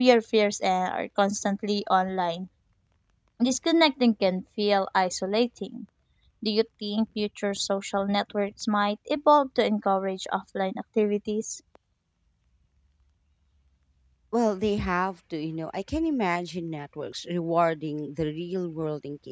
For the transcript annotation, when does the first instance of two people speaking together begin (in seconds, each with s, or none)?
none